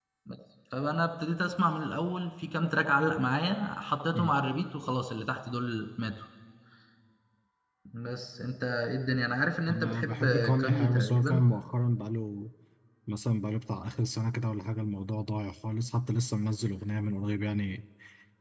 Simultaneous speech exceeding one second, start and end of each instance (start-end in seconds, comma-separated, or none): 9.7-11.5